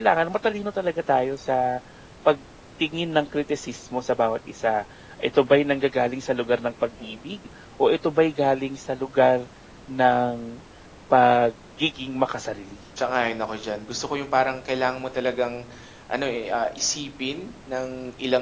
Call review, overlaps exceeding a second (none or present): none